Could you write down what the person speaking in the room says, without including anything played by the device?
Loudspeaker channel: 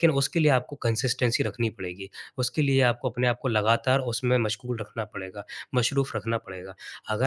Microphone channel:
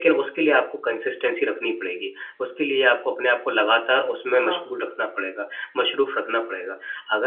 हाँ।

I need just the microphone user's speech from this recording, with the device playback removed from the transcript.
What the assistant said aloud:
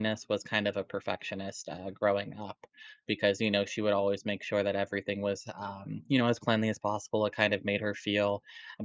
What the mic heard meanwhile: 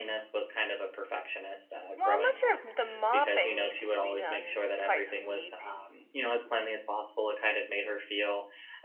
Well, I'm not sure if the mopping needs to be done twice a week.

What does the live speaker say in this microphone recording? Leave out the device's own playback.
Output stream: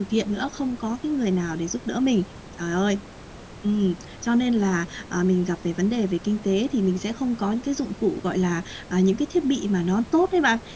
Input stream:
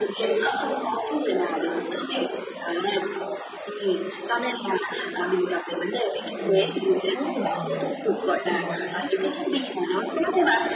thì bạn thấy được là mình có mình gặp những cái khó khăn

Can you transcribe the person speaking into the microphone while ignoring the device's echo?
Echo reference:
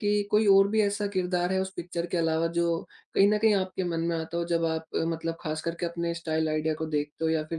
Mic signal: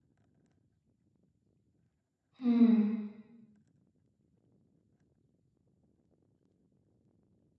हुँ।

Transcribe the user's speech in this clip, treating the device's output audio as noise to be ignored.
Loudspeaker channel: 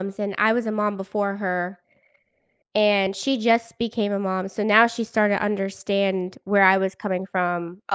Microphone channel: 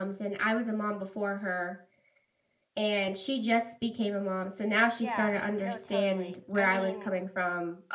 Yeah. No, totally. I mean,

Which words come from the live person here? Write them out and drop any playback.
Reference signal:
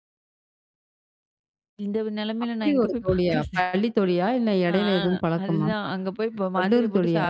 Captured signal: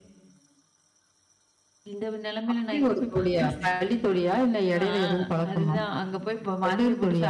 none

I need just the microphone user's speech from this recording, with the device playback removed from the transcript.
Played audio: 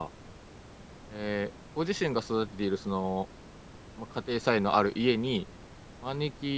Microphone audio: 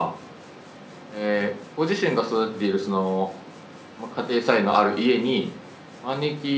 none

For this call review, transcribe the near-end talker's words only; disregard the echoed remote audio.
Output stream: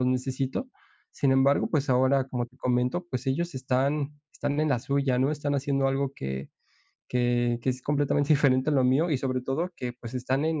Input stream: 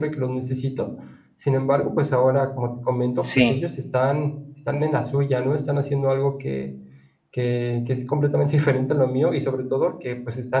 Sí,

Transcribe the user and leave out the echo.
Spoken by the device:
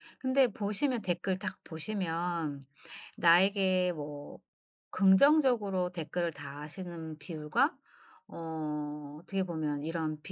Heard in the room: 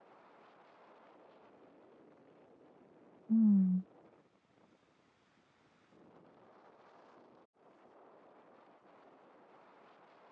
음.

